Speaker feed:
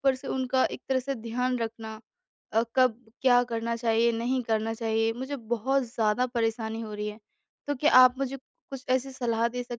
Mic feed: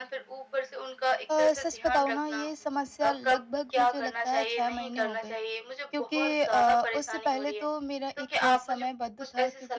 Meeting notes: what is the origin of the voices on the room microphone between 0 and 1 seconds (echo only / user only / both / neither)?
echo only